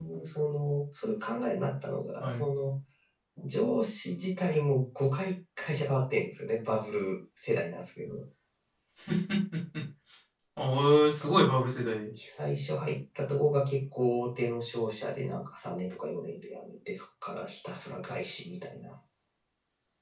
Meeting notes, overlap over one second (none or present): none